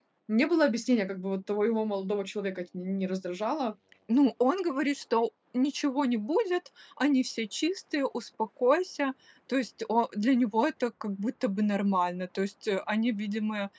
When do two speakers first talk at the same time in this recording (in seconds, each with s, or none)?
none